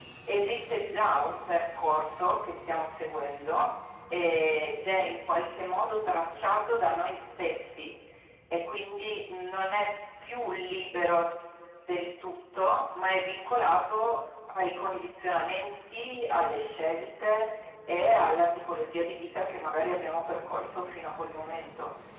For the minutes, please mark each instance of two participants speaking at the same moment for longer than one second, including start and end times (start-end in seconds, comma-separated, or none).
none